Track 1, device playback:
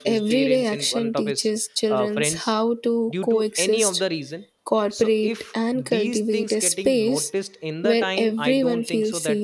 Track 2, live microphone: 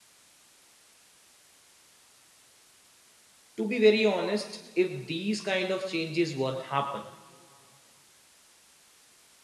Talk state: user only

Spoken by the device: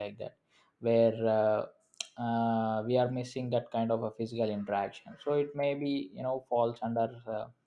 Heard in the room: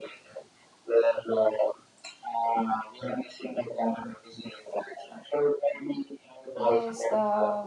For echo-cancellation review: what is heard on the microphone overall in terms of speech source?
both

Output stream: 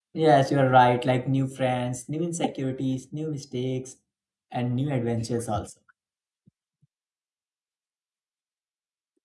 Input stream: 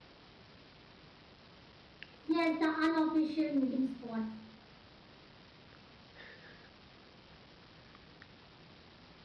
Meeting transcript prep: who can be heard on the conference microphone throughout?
user only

